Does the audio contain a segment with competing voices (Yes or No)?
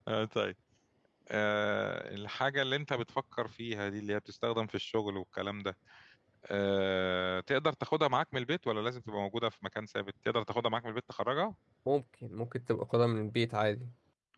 No